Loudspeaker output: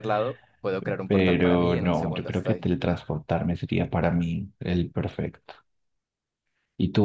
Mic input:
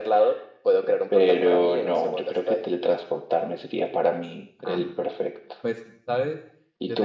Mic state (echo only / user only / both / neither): both